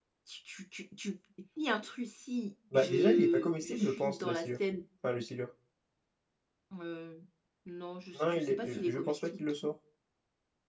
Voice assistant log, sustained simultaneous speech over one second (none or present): present